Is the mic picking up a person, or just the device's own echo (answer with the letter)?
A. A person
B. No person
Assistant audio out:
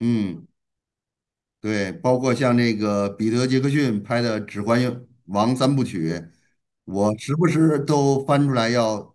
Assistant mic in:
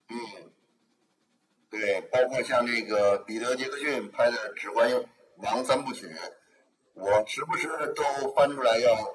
B